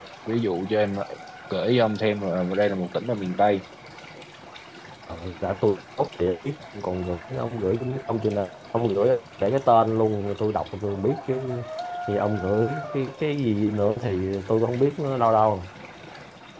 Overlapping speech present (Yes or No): No